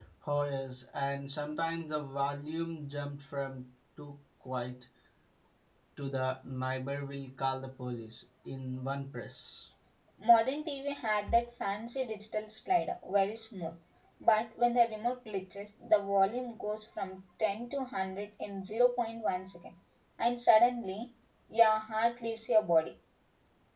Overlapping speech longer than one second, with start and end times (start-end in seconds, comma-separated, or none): none